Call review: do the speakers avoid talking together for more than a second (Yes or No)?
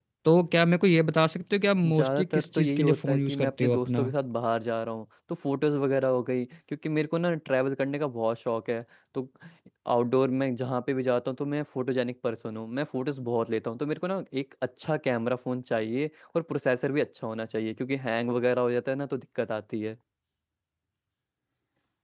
No